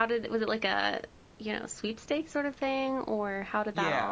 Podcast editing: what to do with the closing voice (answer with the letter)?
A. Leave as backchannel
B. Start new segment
B